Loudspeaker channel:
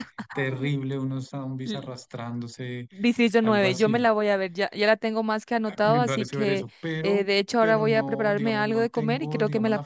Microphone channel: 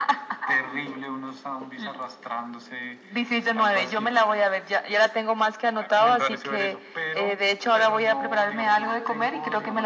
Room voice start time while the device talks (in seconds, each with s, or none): none